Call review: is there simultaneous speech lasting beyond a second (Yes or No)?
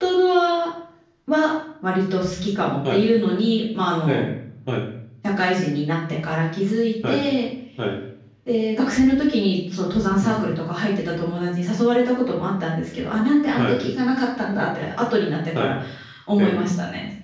No